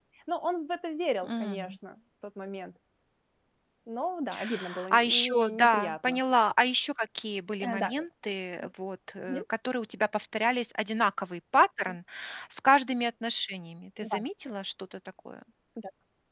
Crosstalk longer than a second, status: present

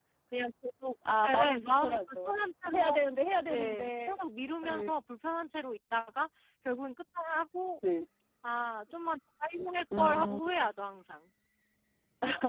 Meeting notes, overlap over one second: present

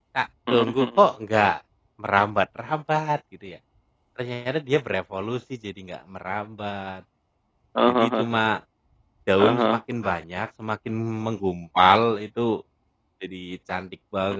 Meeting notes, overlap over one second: none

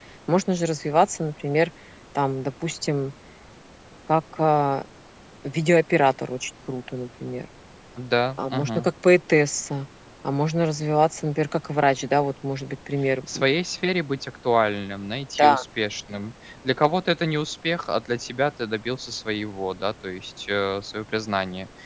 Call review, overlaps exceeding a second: none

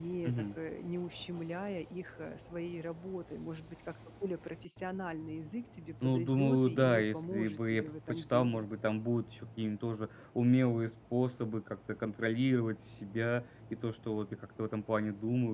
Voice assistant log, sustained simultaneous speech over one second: present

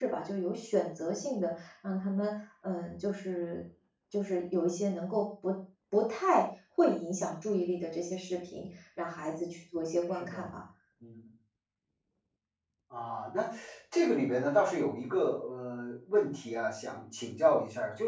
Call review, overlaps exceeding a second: none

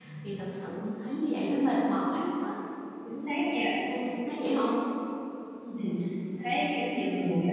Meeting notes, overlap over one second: none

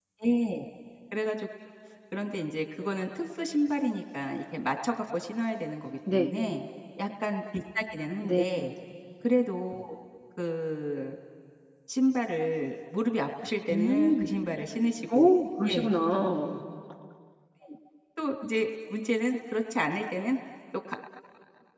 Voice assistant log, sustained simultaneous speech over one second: none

